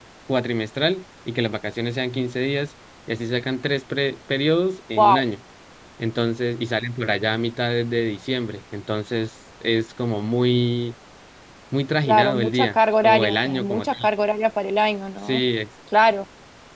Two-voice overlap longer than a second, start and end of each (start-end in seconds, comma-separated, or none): 12.0-14.1